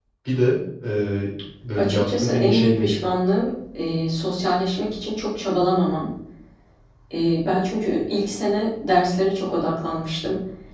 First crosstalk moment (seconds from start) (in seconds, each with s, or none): 1.7 s